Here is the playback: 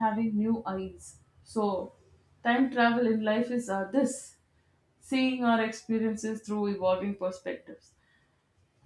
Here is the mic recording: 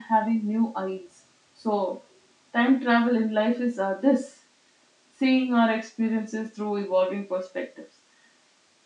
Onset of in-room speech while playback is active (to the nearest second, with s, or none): none